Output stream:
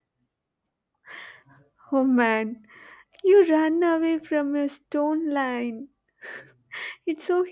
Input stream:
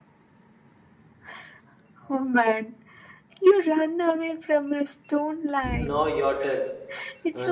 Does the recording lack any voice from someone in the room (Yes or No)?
No